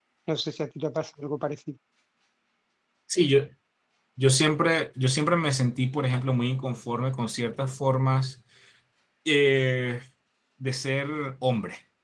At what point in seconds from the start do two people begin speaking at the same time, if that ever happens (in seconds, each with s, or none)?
none